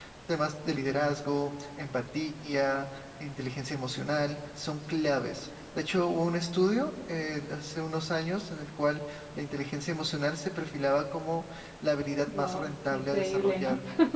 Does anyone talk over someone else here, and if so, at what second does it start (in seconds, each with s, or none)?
12.3 s